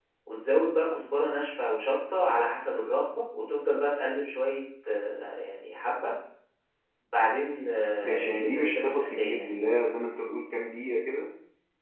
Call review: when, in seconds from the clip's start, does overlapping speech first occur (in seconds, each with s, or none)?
8.0 s